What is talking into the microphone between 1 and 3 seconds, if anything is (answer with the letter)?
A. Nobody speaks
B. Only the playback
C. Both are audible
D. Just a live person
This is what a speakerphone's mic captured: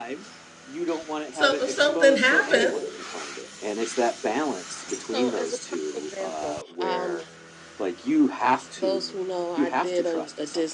C